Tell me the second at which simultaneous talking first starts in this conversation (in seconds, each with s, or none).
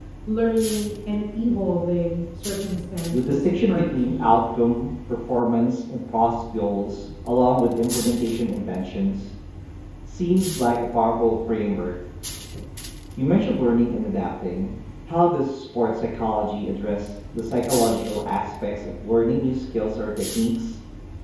3.1 s